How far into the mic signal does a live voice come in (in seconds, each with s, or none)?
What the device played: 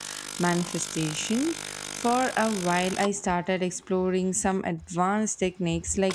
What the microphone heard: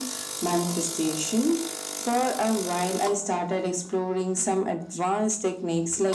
none